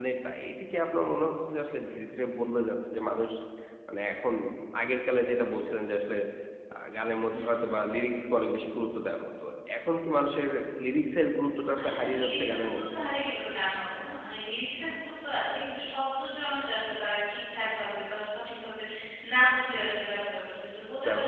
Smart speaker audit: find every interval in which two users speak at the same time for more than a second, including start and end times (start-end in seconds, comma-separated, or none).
11.8-13.0